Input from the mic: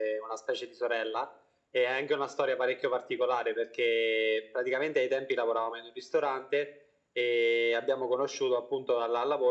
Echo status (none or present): present